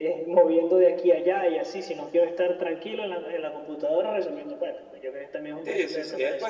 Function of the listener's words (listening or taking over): taking over